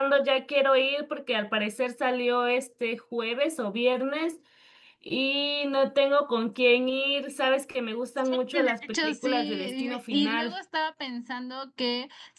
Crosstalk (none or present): present